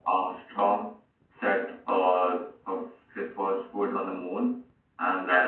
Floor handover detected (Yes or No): No